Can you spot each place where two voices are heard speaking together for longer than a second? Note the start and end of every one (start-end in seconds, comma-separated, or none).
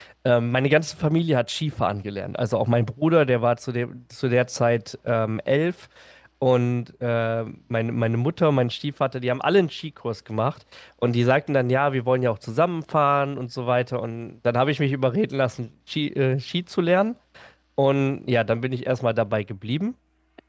none